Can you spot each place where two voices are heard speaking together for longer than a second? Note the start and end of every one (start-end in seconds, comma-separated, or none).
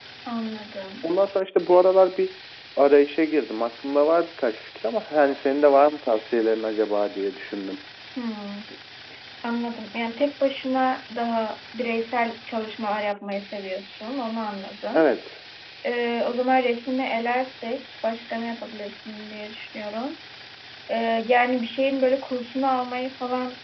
none